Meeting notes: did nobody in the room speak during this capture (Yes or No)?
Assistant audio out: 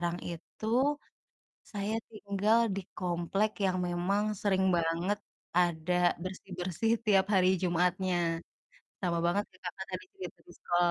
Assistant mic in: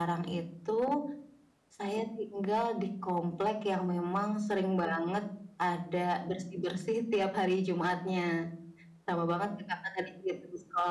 Yes